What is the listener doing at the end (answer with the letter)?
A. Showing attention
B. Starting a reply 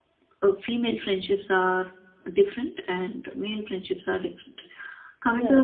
A